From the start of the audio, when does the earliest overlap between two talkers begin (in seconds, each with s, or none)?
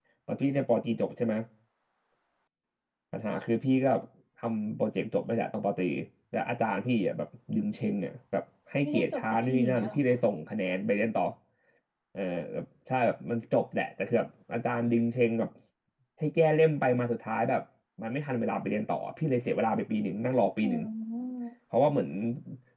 8.8 s